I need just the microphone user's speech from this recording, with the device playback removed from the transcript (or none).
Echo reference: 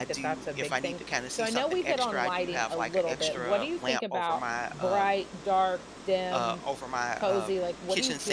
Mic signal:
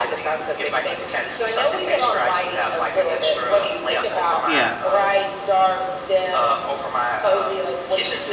Yeah.